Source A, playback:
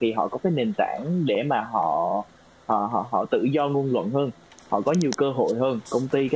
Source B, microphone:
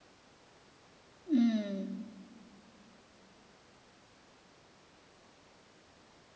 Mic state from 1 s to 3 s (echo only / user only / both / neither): user only